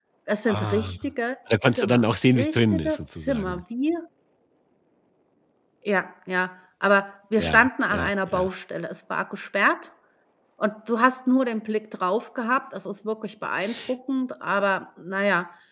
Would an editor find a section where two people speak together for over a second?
Yes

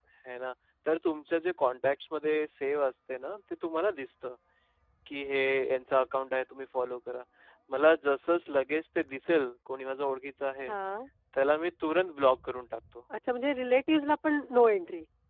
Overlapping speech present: No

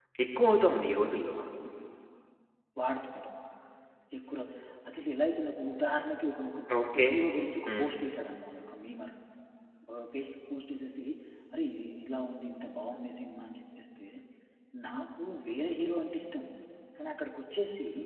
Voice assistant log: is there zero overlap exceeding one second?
Yes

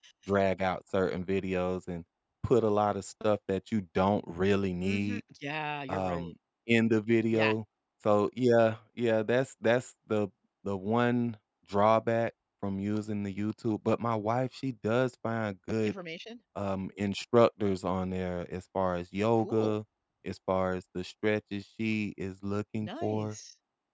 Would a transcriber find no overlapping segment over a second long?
Yes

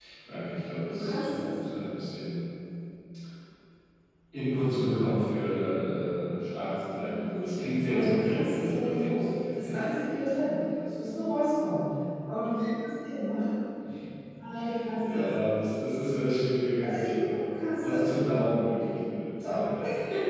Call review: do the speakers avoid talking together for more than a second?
No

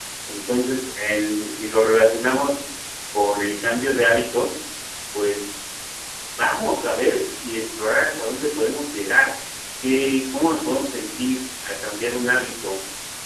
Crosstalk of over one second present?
No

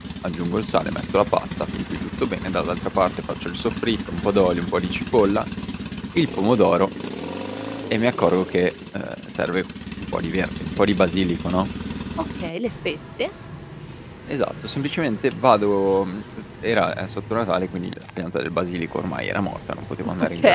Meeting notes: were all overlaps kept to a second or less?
Yes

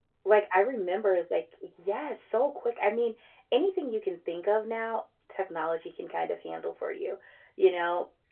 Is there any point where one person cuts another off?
No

